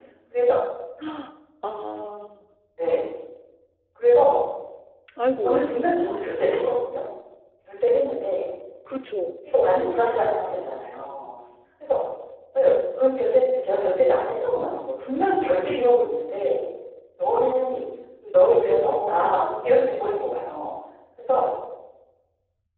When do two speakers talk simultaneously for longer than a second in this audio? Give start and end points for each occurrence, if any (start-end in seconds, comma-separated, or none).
18.6-19.9